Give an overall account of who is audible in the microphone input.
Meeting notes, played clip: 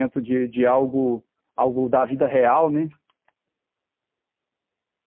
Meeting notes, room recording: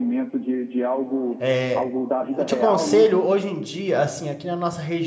both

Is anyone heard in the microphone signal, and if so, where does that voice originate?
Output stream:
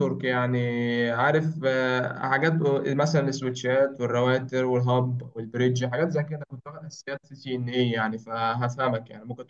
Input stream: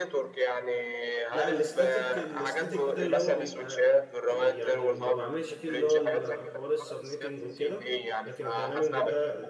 both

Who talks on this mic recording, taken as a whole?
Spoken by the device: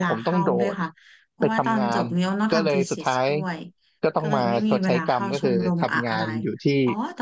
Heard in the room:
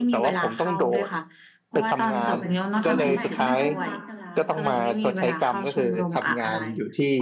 both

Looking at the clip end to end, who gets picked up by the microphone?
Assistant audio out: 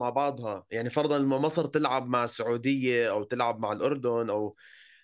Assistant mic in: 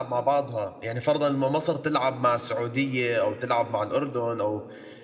echo only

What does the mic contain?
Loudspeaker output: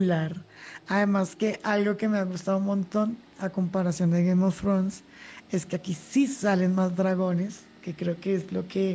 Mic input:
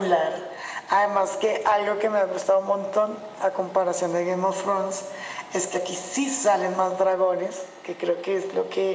echo only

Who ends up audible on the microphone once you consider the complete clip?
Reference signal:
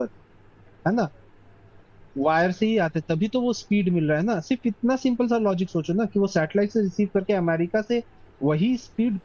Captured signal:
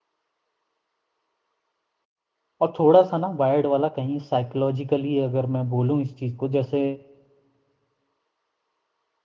user only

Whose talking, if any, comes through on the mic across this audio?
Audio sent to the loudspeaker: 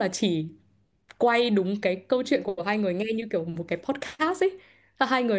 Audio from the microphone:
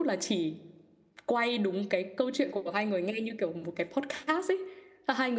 echo only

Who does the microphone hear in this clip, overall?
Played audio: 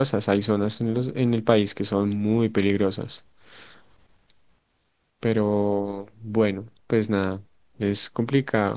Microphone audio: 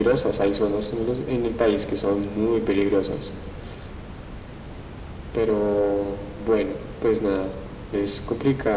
echo only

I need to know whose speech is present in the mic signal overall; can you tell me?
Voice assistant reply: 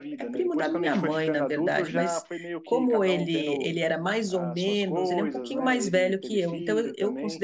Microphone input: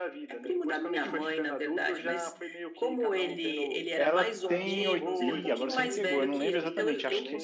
both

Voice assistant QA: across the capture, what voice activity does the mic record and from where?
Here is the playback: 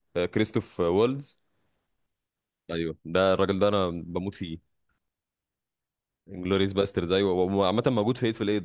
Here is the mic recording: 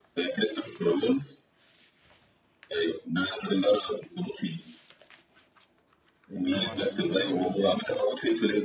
both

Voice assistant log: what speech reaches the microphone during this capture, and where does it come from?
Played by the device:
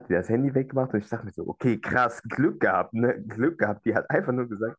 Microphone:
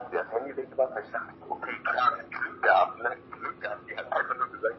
echo only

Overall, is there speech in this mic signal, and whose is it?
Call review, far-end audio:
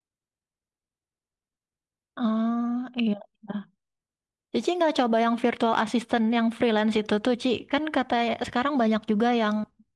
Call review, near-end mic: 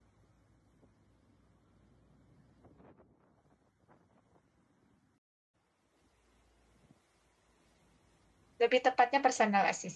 user only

